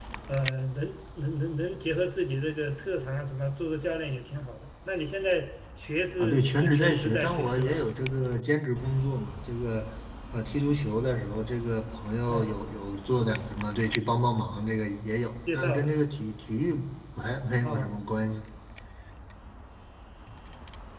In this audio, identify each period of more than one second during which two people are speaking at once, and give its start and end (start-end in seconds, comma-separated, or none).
6.2-7.8